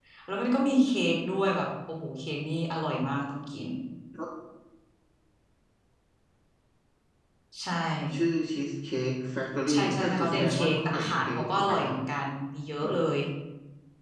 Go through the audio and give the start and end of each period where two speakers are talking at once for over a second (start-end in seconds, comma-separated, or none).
9.7-11.9